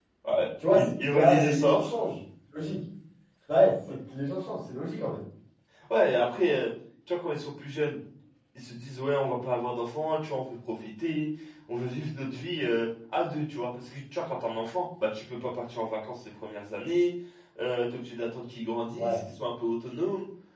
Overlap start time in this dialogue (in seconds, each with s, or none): 0.7 s